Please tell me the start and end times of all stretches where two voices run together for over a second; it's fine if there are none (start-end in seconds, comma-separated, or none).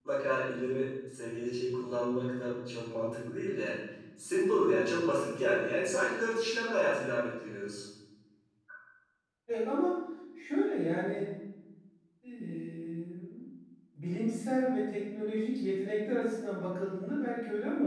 none